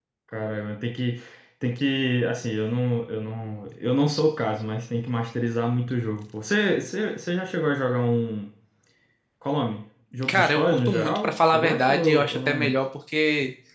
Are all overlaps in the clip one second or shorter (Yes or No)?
No